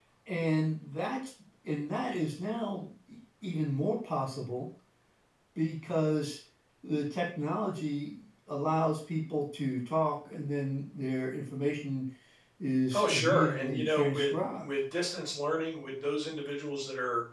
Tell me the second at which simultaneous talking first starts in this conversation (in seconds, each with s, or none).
12.9 s